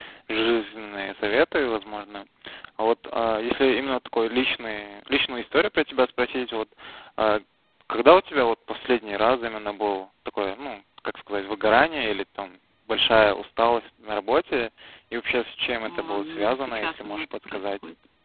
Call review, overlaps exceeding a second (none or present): present